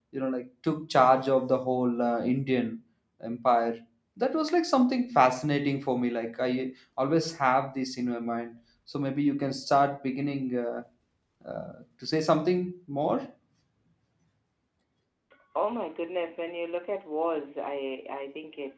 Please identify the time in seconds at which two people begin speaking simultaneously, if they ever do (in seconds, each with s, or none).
none